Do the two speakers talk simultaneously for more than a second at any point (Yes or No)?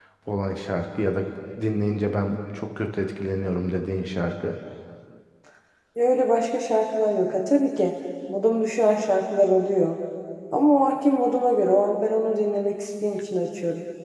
No